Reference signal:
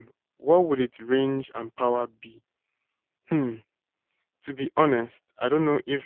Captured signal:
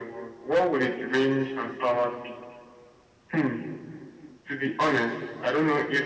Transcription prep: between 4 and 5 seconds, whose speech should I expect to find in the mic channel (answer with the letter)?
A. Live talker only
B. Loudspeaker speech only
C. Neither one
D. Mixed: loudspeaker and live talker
B